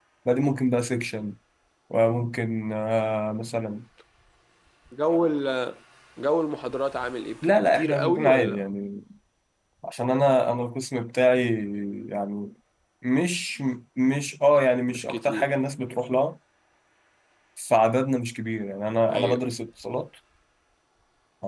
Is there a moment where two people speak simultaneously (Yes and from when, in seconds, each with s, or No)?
Yes, from 7.4 s